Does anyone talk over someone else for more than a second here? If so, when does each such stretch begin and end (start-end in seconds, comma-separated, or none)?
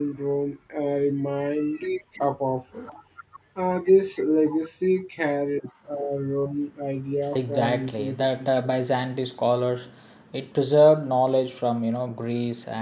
7.3-8.7